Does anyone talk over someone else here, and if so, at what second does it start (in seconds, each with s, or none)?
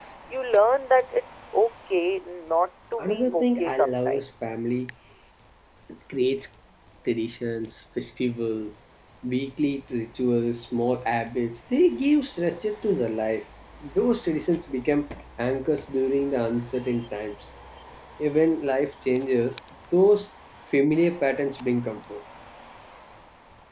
3.0 s